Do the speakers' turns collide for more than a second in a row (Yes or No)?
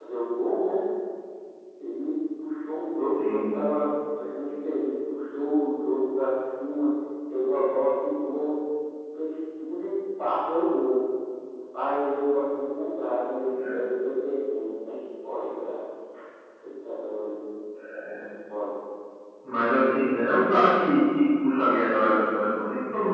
No